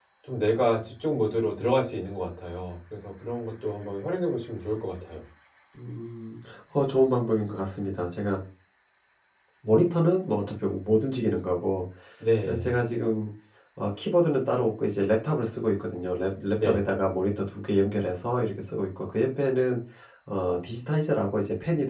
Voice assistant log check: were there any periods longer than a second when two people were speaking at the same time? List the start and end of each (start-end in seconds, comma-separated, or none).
none